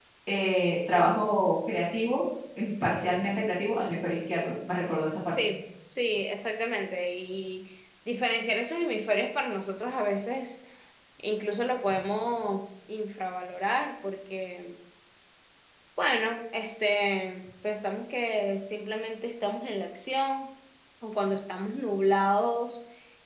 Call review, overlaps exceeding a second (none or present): none